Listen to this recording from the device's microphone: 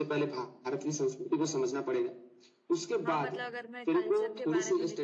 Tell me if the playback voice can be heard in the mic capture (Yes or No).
Yes